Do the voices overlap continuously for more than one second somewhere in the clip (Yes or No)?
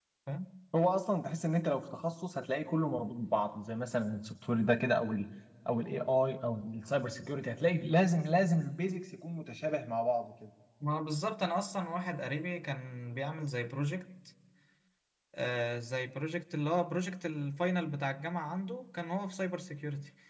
No